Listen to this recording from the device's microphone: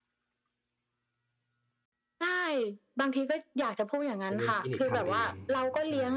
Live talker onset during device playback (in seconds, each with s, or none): 4.3 s